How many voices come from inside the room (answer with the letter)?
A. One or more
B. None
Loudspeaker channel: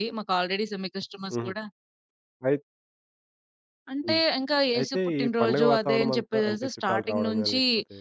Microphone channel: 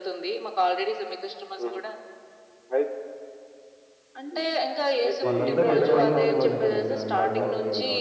A